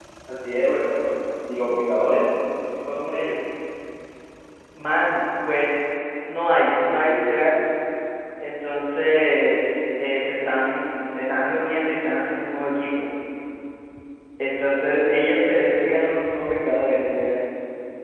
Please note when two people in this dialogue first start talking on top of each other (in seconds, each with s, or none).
none